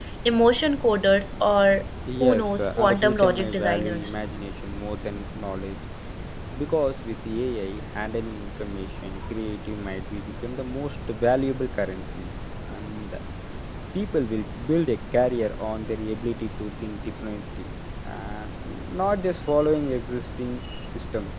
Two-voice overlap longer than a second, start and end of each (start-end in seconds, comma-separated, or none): 2.2-4.1